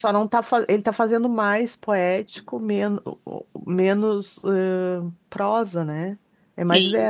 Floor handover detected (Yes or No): Yes